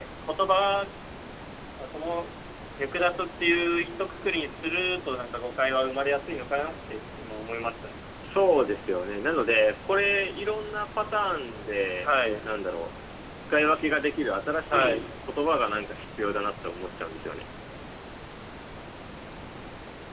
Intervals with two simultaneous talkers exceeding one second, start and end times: none

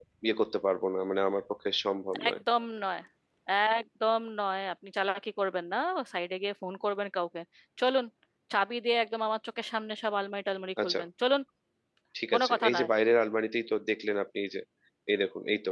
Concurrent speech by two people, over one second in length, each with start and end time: none

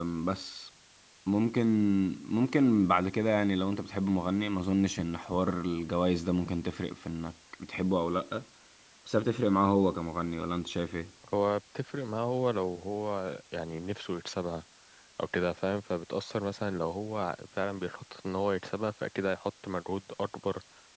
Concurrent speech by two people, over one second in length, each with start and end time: none

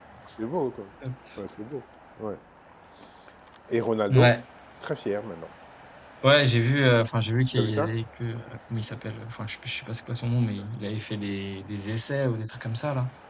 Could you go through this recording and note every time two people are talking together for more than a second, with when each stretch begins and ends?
none

